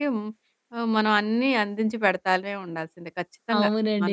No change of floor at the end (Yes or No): No